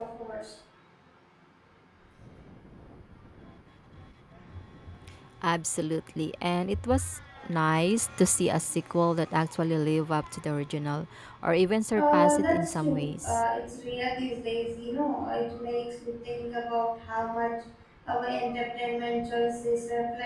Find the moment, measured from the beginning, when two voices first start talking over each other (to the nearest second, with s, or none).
12 s